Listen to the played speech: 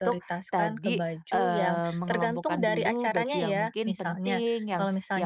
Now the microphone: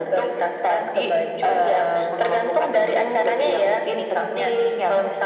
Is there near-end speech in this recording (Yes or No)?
No